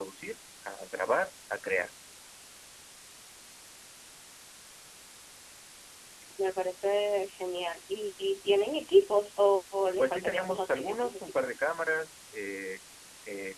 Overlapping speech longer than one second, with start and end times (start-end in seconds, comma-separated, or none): 10.0-11.6